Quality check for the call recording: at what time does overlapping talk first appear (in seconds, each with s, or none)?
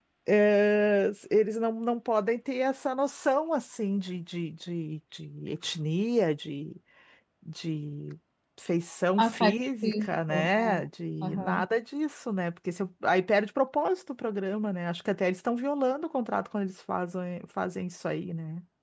9.2 s